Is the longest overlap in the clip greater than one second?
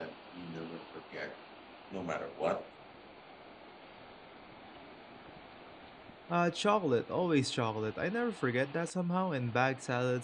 No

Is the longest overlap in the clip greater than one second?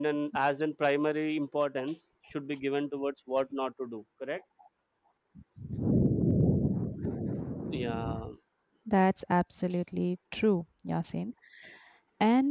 No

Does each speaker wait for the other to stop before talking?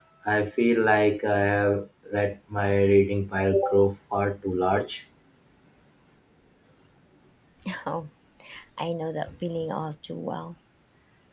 Yes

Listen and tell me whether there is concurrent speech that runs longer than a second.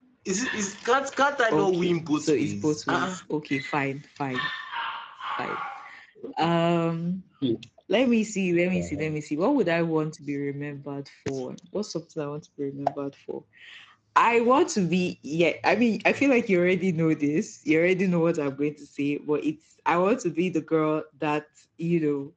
Yes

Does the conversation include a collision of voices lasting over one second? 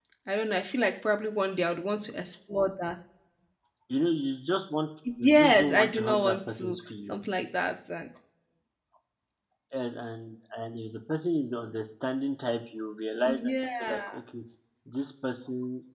Yes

